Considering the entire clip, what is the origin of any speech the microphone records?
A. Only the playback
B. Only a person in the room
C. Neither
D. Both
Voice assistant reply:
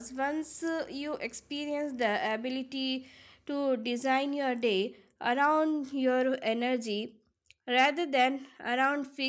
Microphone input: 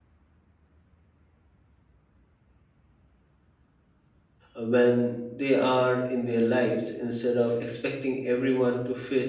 B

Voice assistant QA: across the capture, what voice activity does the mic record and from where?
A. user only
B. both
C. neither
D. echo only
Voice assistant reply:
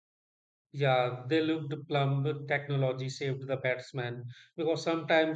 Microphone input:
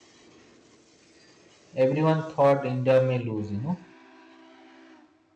A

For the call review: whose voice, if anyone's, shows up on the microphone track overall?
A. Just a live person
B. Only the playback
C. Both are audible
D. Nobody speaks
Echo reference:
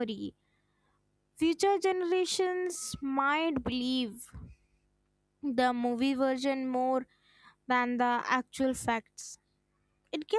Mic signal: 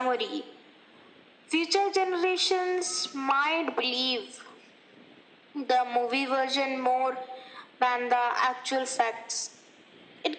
B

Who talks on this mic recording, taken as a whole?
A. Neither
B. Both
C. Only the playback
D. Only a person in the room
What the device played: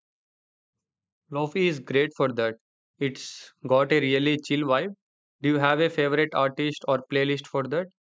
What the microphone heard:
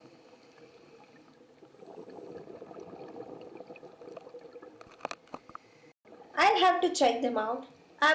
D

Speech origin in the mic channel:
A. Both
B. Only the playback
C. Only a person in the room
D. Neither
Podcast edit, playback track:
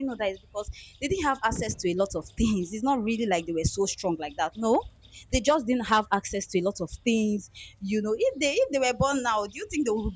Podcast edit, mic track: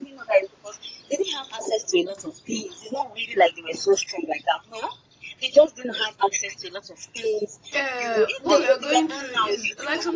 A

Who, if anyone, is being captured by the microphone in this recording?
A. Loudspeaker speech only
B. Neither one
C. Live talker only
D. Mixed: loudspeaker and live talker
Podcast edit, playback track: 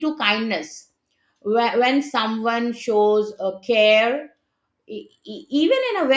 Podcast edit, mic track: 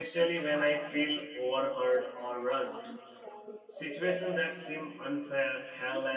D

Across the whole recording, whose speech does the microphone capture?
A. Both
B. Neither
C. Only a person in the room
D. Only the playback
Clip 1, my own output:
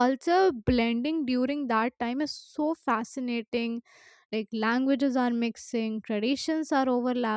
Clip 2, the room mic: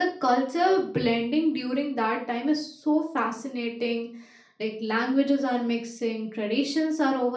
D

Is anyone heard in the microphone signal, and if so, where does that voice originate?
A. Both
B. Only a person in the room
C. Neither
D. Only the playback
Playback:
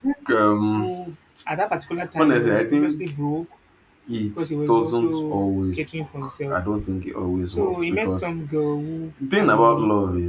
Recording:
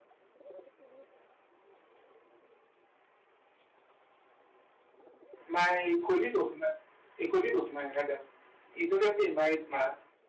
B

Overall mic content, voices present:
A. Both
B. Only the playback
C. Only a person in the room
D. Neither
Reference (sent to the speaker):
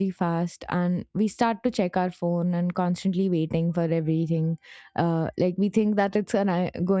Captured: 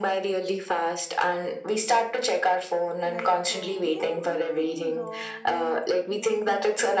A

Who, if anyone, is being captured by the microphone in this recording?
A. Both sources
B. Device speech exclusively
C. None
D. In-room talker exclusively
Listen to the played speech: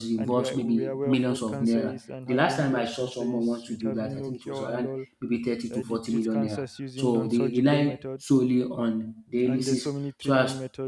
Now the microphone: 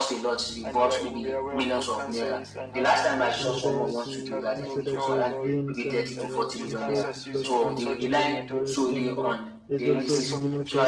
A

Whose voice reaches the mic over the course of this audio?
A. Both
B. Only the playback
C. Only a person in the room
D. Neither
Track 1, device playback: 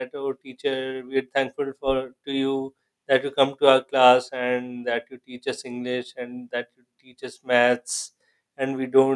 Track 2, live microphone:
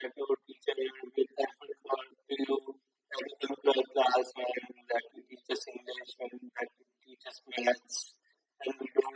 B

